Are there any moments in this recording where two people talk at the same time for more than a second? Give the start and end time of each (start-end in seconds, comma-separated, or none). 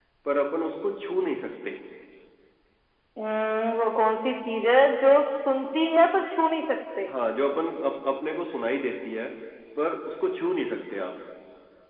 none